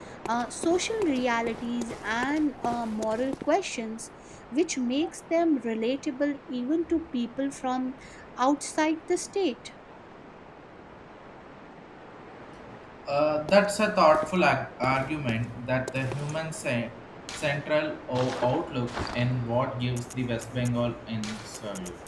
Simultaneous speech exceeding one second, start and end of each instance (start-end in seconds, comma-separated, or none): none